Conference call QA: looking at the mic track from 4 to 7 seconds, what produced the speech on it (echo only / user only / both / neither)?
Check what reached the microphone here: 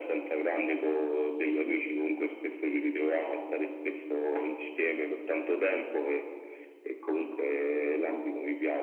echo only